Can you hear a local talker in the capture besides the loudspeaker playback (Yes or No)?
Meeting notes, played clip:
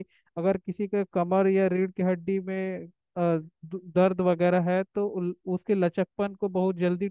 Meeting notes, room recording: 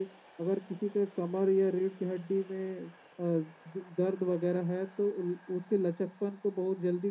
No